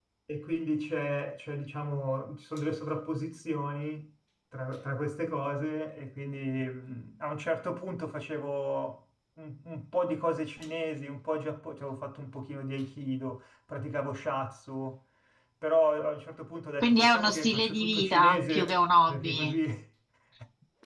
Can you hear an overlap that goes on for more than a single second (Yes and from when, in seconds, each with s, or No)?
Yes, from 16.8 s